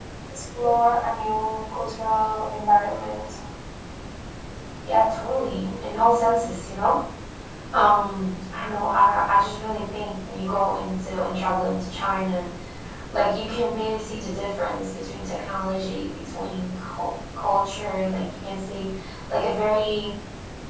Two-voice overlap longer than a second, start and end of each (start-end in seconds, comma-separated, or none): none